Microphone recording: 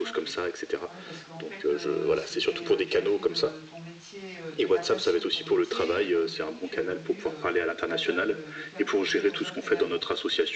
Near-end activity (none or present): present